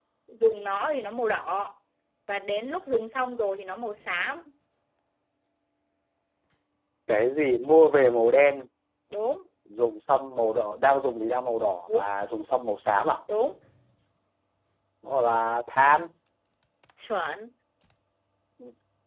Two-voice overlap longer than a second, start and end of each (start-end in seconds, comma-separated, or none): none